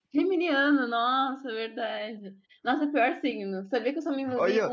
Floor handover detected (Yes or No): Yes